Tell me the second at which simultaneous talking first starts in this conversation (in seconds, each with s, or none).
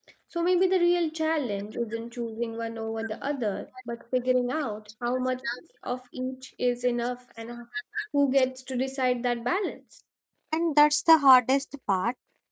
none